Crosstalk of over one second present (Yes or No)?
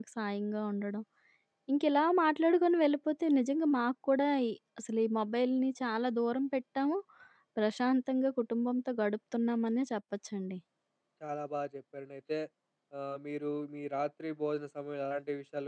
No